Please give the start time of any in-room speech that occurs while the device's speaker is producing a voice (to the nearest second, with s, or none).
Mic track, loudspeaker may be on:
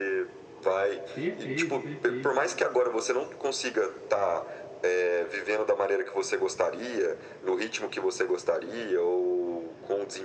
1 s